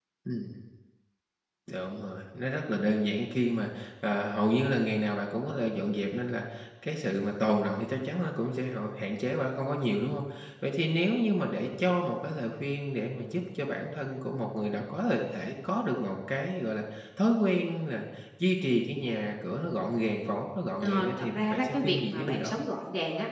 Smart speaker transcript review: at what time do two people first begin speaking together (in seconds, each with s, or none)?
20.8 s